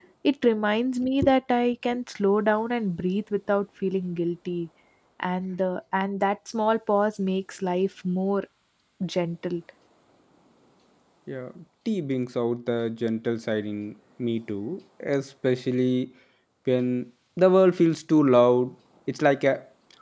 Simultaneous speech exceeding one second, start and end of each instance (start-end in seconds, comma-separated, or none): none